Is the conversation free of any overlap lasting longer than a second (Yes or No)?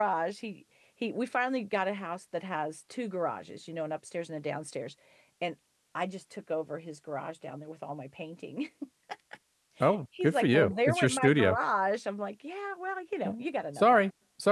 No